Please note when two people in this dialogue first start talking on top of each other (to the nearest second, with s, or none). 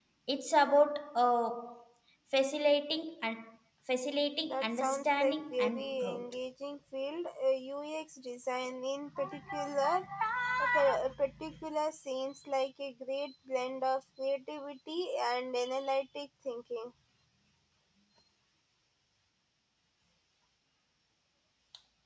4 s